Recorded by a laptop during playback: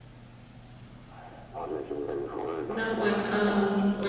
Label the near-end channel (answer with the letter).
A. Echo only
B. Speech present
B